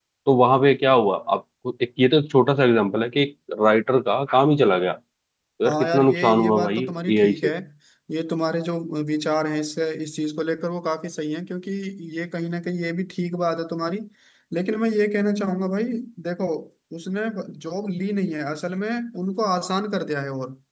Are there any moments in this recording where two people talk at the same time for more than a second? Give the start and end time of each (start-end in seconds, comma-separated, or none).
5.7-7.5